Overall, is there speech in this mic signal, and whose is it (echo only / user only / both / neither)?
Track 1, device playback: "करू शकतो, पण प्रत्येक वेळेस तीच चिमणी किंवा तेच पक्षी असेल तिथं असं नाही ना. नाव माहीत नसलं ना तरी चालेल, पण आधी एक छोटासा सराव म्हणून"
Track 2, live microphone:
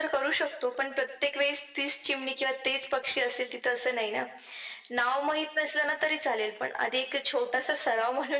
echo only